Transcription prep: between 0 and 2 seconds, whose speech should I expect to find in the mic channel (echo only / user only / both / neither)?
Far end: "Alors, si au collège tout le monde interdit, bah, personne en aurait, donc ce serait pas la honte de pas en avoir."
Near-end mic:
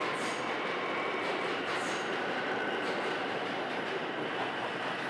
neither